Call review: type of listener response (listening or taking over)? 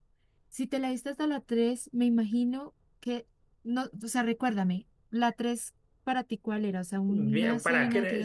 taking over